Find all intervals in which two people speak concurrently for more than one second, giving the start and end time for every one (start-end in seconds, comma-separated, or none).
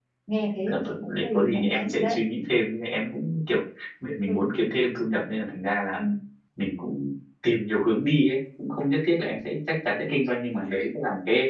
0.7-2.2